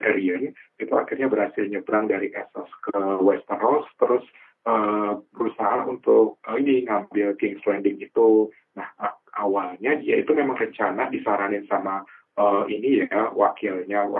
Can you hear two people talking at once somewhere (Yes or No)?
No